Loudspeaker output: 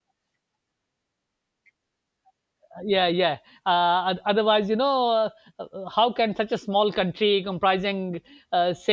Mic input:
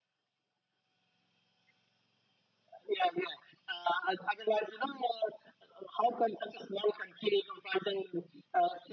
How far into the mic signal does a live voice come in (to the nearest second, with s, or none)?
none